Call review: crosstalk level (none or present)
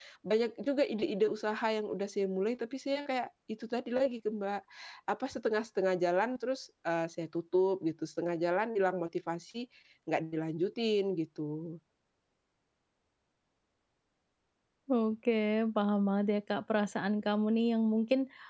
none